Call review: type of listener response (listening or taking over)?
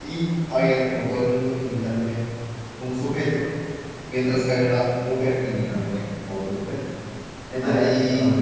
listening